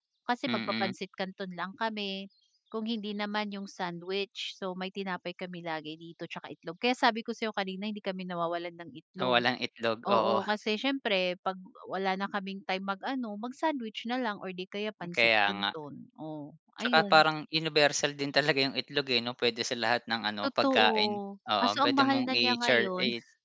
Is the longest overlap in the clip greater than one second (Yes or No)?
Yes